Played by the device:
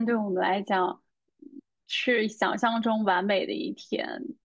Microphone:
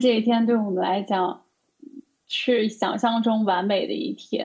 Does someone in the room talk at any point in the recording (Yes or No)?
No